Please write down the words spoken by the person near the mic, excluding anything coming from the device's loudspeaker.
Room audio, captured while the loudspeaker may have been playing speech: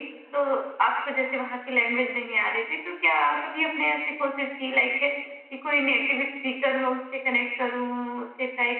none

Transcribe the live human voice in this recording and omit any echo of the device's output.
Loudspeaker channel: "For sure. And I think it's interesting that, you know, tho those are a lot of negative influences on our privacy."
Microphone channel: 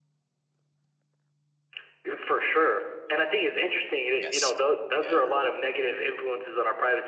Yes. Yeah.

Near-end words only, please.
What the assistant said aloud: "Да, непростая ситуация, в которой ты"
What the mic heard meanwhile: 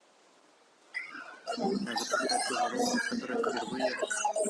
э, запускать тоже роботов, которые впервые,

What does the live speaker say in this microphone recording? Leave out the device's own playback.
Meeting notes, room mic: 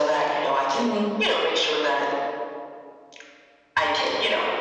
Mhm.

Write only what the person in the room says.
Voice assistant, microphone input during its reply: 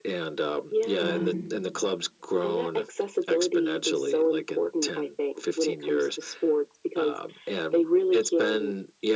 hmm

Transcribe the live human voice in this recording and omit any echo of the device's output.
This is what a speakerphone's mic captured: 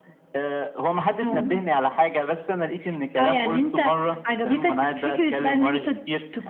اهم،

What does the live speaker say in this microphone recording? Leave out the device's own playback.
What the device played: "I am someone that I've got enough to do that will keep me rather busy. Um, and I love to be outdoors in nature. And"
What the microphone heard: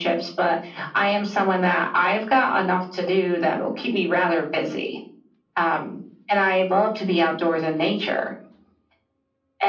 none

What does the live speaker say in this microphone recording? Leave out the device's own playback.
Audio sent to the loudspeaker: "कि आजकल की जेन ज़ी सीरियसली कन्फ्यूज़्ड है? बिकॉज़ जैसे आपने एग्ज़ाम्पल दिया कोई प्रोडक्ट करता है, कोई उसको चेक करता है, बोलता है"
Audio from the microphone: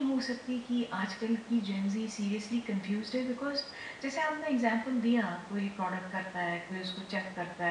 none

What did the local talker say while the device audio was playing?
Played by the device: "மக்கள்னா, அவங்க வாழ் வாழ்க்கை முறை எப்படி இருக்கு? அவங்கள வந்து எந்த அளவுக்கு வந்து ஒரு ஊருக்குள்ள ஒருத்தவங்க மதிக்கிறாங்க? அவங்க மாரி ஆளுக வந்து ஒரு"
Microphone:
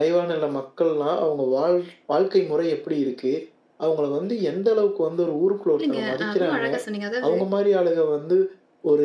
இல்லங்க அ ரொம்ப அழகா சொன்னீங்க. அதாவது

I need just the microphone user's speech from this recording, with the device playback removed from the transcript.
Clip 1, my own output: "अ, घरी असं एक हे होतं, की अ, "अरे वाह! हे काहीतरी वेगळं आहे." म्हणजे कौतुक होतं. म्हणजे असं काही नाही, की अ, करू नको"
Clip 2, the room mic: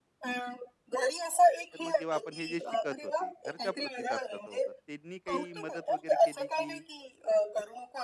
तर मग जेव्हा आपण हे जे शिकत होते, घरचा प्रतिसाद कसा होता? त्यांनी काही मदत वगैरे केली की

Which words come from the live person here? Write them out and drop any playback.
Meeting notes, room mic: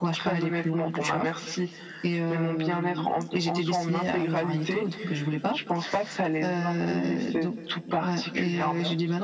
none

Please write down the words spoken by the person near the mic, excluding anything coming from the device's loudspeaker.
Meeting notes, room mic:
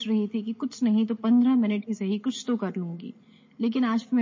none

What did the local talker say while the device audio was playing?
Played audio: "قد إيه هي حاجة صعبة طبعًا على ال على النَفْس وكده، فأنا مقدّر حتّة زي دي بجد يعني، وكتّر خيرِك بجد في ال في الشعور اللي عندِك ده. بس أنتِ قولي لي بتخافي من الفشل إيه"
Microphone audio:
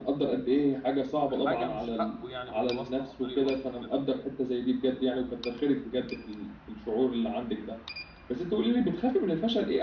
بحاجة مش حقه يعني بالواسطة، عن طريق الواسطة وكده.

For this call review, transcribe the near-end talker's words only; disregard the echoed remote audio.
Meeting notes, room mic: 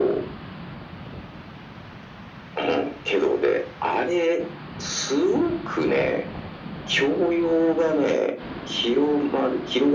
none

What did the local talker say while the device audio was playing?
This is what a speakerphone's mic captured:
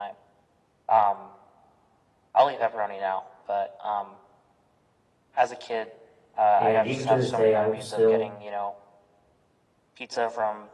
And even to this day, I will still

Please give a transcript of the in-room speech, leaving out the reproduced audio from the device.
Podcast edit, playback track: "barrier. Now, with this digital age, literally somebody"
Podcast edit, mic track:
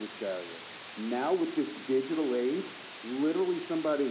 none

